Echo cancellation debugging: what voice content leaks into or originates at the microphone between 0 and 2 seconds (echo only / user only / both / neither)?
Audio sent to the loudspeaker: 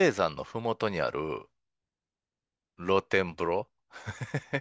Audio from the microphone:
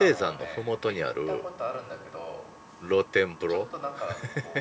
both